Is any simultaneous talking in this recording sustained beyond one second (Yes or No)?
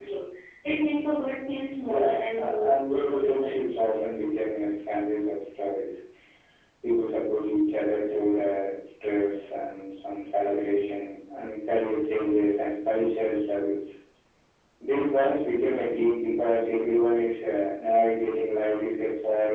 Yes